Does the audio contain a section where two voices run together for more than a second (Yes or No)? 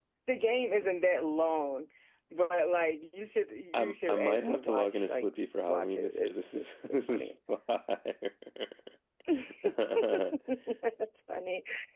Yes